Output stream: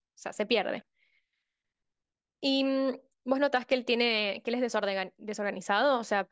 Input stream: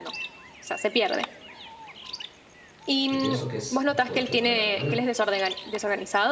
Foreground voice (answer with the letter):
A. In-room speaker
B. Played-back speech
B